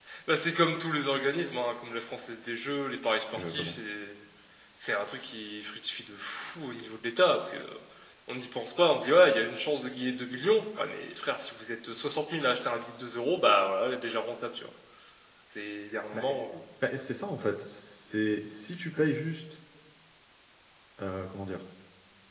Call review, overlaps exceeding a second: none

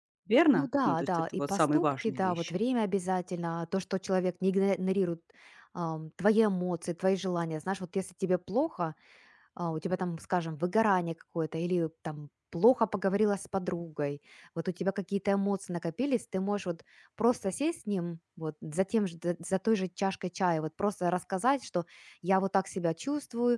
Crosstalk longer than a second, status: present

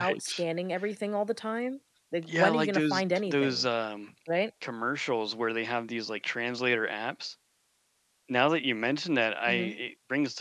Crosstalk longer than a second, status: present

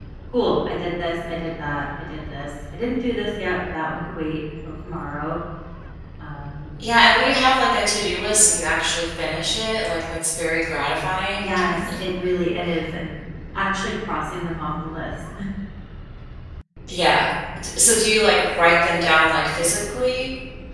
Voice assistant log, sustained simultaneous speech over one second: none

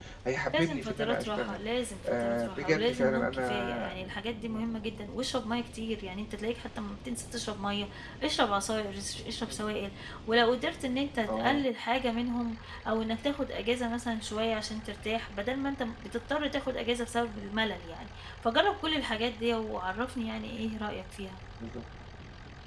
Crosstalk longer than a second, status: present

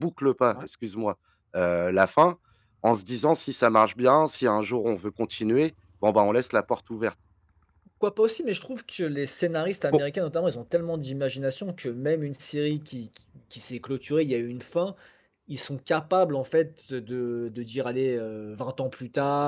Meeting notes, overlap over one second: none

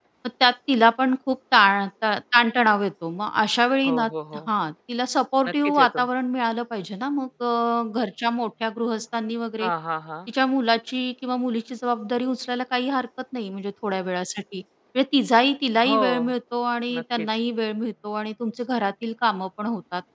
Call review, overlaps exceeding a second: none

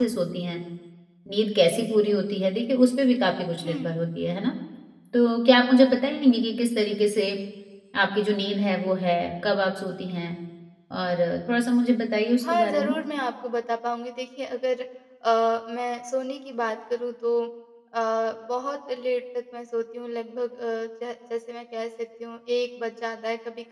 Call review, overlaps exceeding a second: none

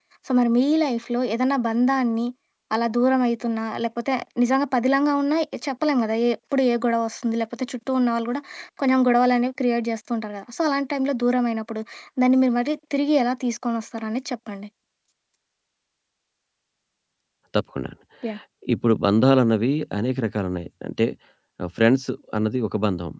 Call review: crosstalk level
none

